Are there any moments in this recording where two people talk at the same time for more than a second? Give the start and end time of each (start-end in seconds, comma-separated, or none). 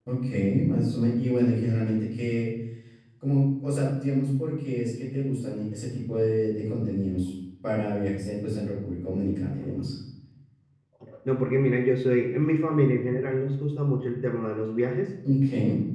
none